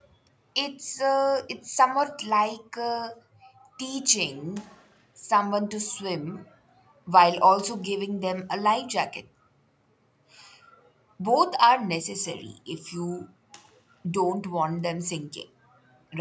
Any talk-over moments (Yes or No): No